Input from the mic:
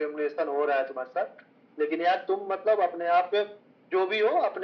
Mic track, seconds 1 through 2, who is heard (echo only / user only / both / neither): echo only